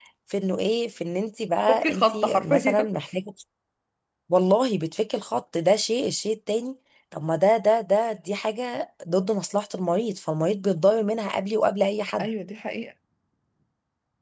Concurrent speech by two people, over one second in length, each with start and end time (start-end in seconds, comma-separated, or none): 1.7-2.9